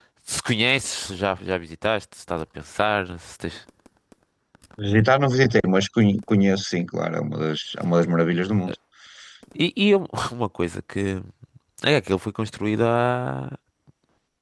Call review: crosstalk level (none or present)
none